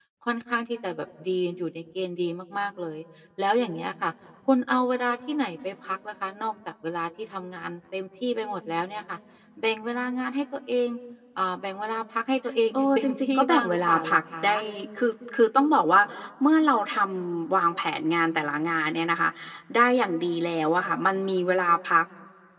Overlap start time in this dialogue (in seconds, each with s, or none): 12.7 s